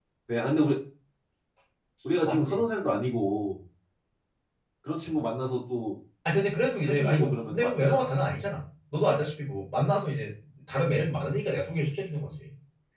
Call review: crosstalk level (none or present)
present